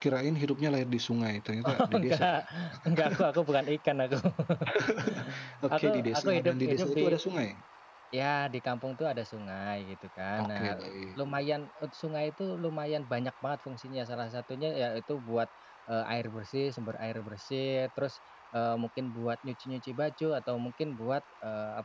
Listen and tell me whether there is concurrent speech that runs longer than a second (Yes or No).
Yes